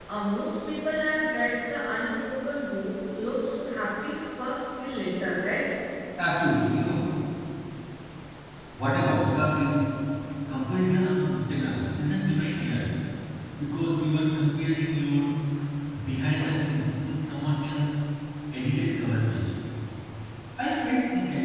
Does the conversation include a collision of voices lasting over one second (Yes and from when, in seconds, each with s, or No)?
No